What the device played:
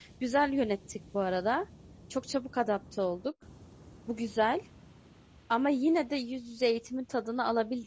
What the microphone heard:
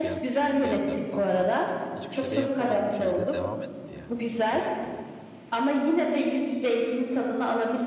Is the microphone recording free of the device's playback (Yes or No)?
No